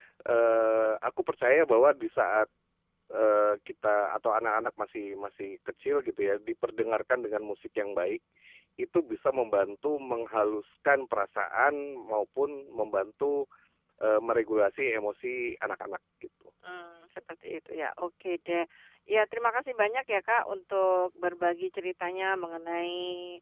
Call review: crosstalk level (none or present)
none